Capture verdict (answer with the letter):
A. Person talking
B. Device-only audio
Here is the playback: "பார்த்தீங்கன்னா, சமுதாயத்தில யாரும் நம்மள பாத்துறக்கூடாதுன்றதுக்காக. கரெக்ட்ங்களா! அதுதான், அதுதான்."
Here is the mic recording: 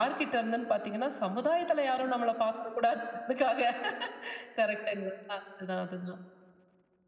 B